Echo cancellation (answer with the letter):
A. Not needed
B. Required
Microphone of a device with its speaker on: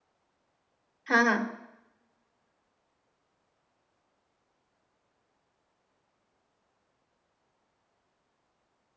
A